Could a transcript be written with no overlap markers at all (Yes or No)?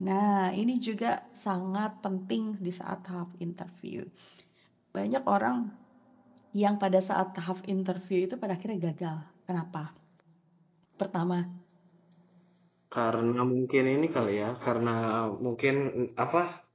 Yes